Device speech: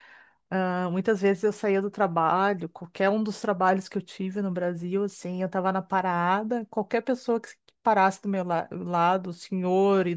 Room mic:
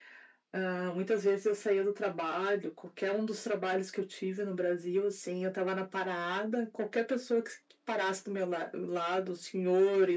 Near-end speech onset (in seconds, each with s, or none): none